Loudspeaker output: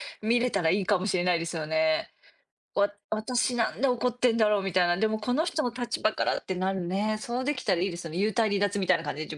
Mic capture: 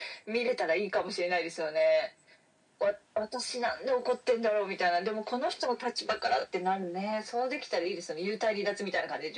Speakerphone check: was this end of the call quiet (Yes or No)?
Yes